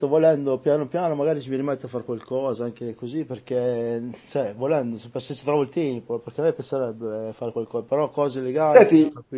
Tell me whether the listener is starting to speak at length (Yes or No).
Yes